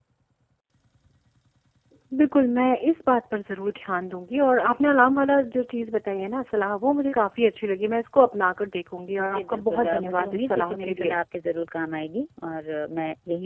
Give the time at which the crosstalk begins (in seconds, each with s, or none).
9.2 s